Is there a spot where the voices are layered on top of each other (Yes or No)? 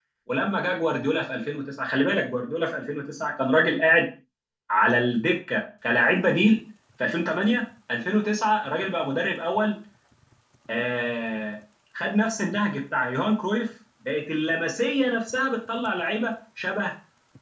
No